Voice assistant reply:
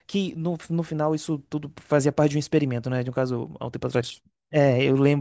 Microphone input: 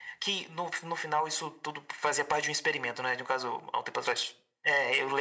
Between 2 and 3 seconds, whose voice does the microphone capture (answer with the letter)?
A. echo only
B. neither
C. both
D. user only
A